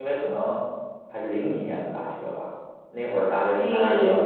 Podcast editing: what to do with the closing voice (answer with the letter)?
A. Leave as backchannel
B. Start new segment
A